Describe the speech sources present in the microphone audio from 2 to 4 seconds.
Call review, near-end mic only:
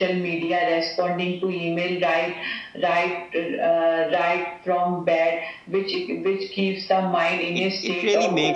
echo only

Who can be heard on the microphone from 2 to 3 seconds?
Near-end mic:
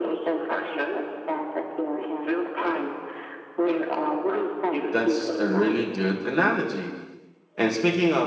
echo only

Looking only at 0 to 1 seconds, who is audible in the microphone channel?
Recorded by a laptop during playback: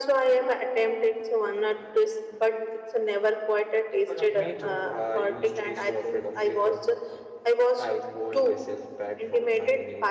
echo only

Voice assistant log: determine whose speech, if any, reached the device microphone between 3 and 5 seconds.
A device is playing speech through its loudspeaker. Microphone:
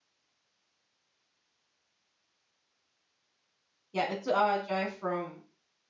user only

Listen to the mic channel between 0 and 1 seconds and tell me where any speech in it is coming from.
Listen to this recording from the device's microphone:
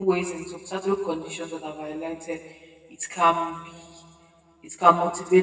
user only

